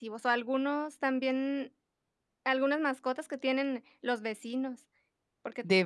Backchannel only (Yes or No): Yes